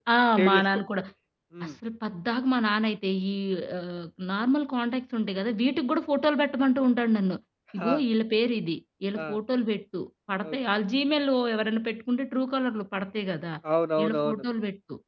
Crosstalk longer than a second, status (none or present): none